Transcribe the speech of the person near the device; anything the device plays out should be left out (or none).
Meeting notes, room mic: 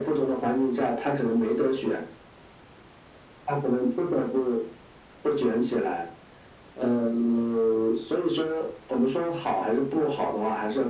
none